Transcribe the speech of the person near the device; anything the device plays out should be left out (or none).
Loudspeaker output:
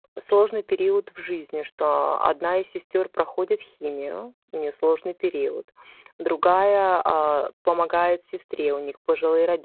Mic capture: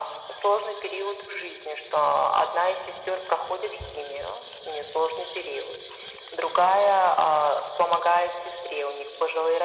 none